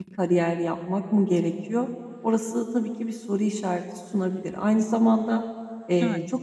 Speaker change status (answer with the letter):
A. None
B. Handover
A